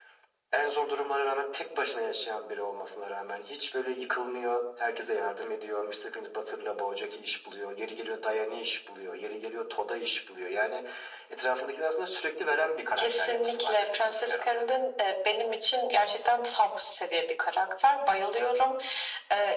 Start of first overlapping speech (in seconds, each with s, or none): 13.0 s